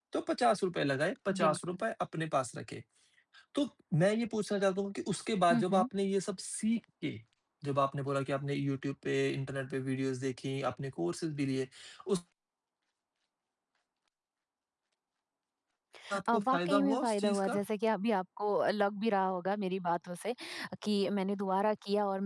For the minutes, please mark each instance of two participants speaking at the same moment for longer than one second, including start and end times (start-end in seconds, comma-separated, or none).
16.3-17.6